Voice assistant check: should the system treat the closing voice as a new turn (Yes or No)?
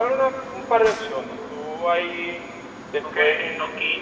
Yes